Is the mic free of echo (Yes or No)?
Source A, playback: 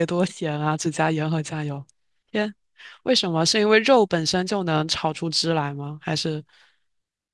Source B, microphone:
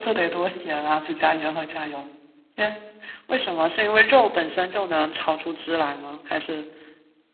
No